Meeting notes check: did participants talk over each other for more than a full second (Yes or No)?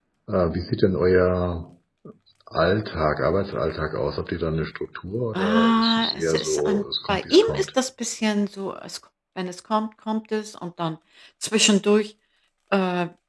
Yes